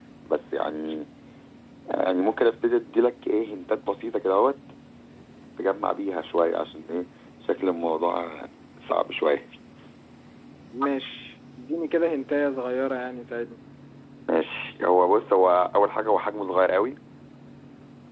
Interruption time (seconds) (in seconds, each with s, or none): none